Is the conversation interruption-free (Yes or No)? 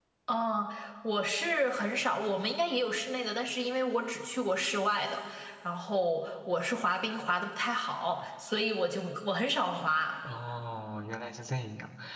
Yes